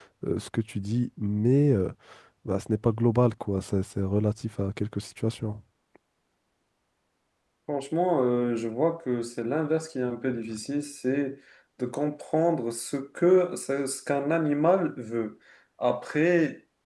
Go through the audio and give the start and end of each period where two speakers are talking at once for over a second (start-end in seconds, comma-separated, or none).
none